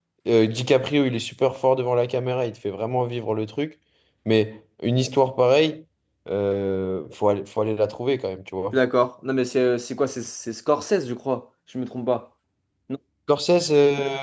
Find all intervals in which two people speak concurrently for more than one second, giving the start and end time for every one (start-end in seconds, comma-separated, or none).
none